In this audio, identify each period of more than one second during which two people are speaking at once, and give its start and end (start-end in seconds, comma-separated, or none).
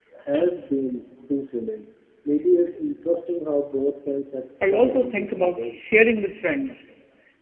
4.6-5.9